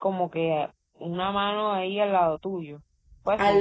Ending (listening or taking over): taking over